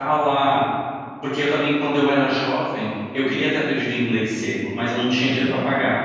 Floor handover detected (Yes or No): No